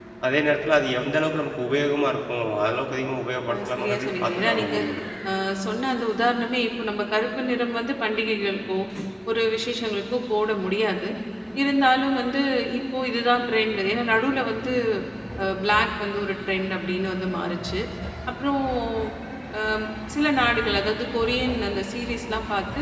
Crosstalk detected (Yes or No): Yes